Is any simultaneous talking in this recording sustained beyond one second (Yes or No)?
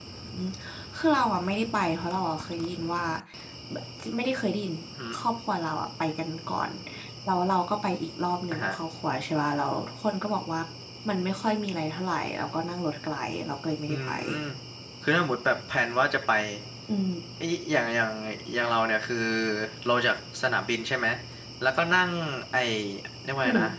No